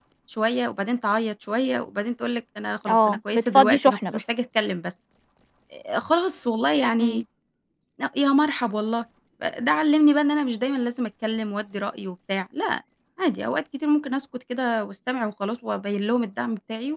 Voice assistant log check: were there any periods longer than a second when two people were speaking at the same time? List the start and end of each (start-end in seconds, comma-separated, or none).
2.9-4.2